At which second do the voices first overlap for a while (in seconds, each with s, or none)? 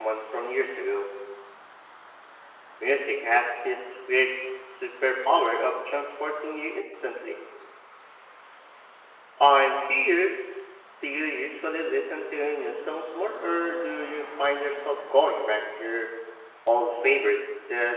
none